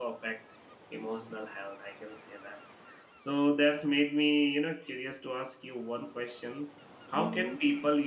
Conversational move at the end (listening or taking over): listening